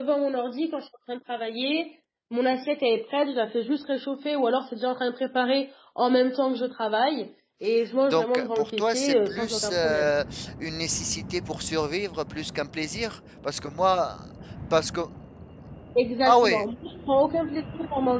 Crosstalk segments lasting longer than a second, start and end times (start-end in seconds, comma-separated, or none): 8.1-10.1